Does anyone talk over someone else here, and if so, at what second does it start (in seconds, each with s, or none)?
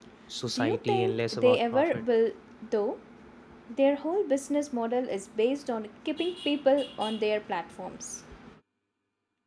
0.5 s